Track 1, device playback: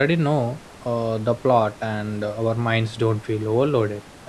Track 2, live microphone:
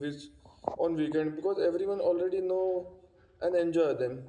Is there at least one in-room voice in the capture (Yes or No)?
Yes